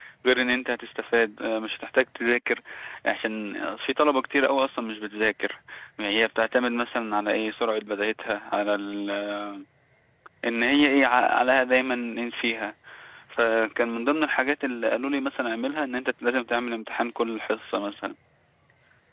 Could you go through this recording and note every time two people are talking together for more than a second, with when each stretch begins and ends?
none

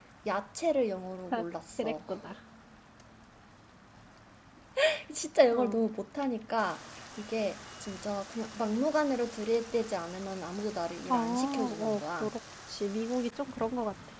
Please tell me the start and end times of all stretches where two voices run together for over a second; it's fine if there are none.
11.1-12.3

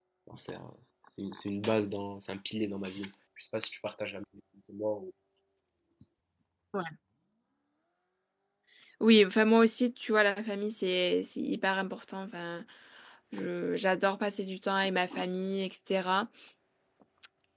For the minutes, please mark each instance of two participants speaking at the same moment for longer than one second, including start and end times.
none

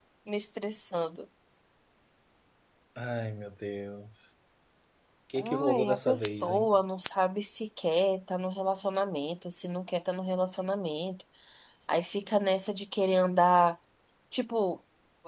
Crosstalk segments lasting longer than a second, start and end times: 5.3-6.7

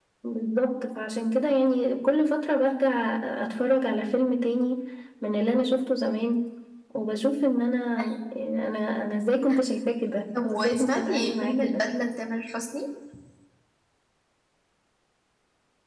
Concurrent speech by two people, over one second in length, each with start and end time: 10.4-11.8

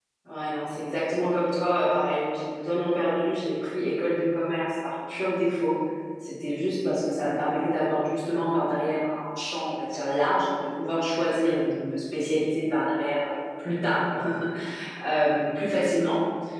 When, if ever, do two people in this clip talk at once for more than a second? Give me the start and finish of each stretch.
none

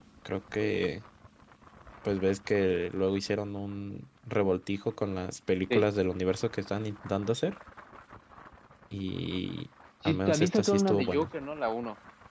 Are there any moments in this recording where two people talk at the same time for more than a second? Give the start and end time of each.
10.0-11.3

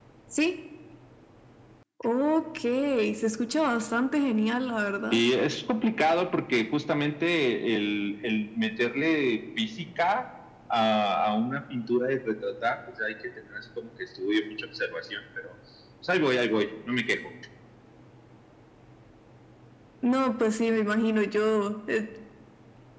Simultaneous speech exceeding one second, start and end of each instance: none

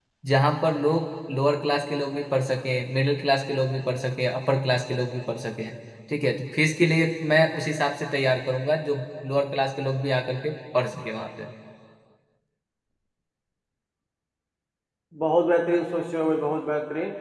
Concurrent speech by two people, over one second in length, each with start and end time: none

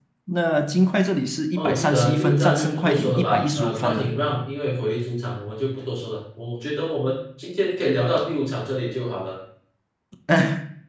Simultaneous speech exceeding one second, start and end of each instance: 1.6-4.1

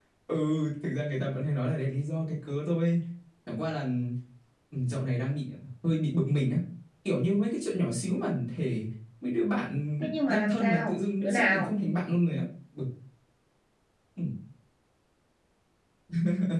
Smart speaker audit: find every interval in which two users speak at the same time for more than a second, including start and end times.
10.0-11.7

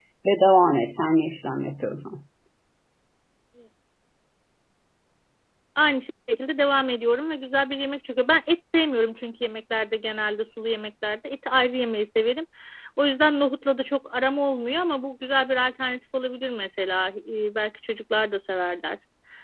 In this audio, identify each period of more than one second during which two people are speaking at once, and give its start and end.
none

